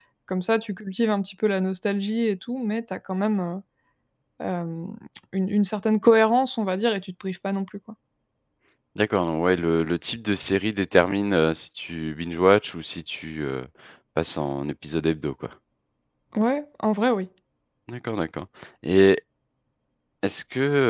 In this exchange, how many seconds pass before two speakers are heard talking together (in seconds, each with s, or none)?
none